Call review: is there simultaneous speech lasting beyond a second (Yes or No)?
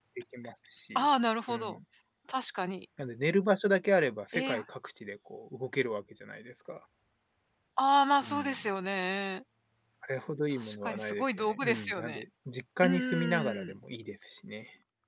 Yes